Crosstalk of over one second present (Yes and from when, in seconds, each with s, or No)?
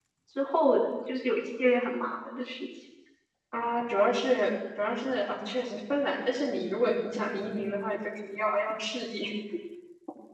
No